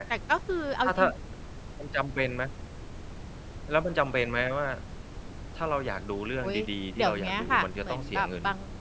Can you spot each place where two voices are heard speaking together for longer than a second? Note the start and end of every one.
7.0-8.3

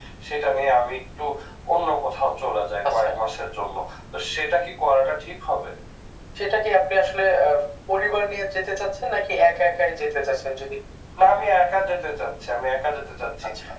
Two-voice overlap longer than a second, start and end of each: none

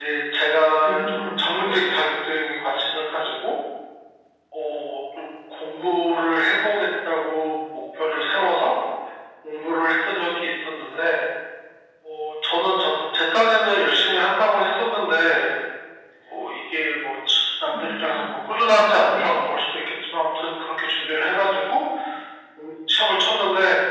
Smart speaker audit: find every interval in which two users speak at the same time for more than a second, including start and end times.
0.8-2.0

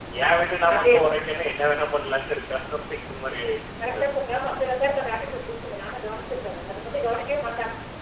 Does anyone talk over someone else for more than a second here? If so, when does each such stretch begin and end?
none

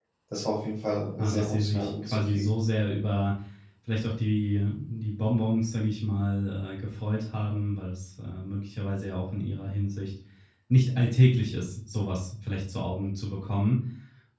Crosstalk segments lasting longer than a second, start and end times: 1.2-2.6

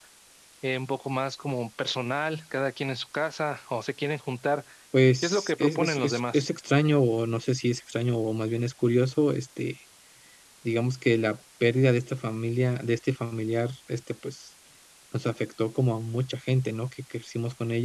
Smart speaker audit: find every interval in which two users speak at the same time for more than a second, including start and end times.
5.2-6.5

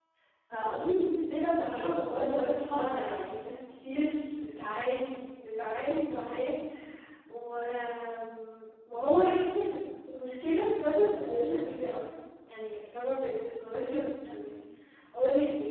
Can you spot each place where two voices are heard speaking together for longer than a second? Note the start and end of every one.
1.5-3.3

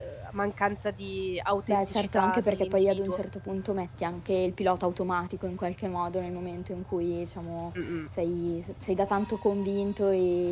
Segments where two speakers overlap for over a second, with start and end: 1.7-3.2

